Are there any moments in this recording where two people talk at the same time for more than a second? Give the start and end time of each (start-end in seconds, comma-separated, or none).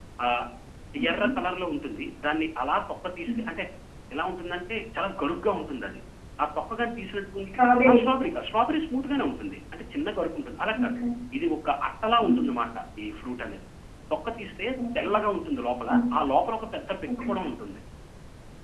none